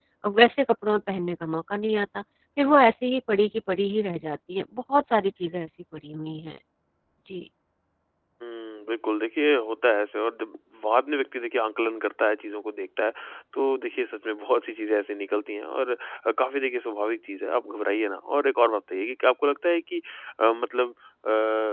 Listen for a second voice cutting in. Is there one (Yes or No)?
No